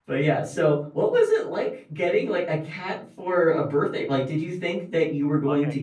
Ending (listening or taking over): taking over